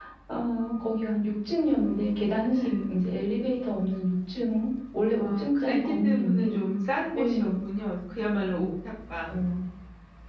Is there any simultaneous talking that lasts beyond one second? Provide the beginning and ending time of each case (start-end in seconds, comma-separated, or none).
5.2-6.6